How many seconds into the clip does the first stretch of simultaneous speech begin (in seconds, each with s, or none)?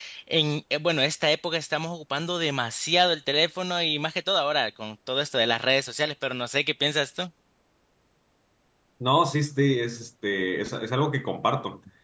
none